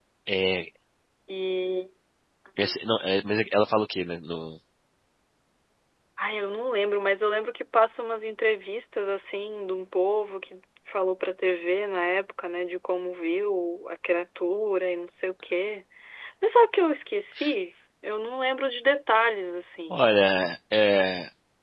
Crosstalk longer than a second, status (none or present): none